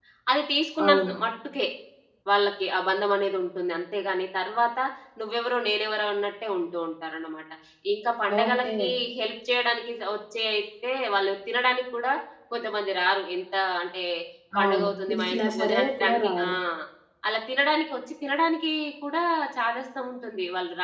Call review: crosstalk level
present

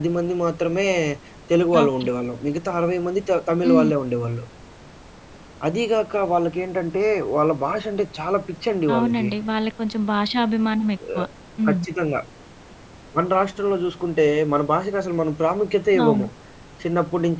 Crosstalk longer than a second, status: none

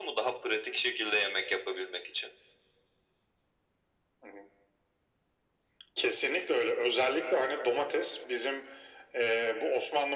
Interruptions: none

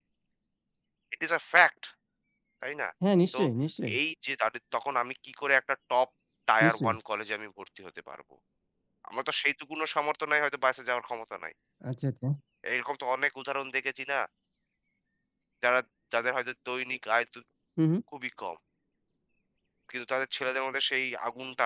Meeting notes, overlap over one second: none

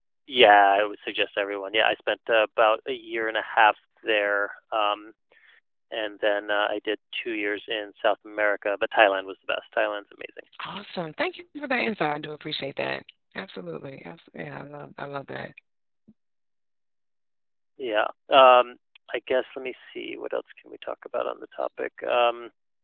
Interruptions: none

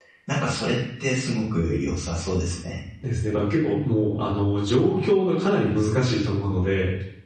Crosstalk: none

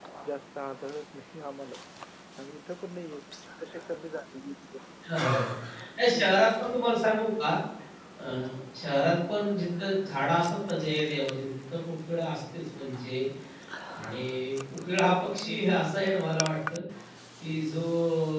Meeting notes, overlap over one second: none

